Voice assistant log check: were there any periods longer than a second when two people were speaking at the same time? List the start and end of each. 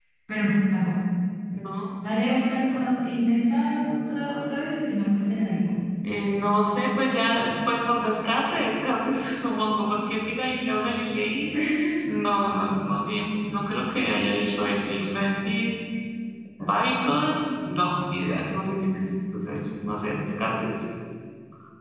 none

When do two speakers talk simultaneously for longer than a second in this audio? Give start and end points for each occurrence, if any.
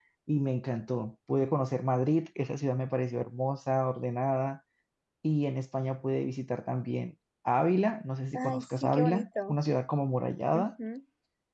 8.3-9.6

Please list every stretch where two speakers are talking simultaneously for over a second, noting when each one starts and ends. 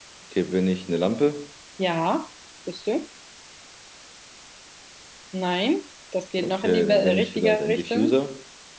6.4-8.2

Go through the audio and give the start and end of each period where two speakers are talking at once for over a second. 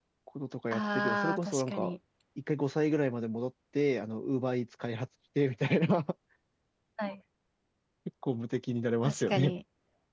0.7-1.9

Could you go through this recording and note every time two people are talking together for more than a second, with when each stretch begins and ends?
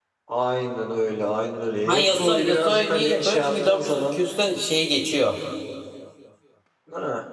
1.9-4.2

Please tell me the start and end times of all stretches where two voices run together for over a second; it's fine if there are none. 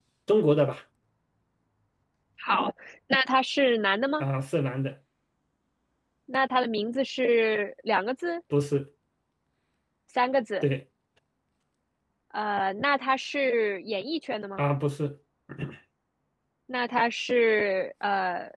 none

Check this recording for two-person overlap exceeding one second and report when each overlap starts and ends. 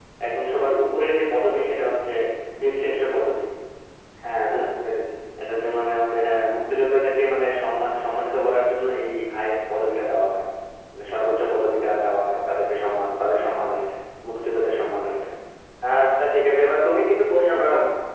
none

